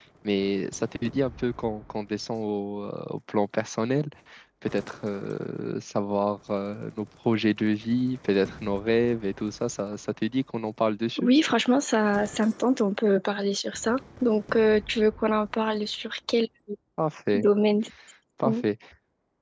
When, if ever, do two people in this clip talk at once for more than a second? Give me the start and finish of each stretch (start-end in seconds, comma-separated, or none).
none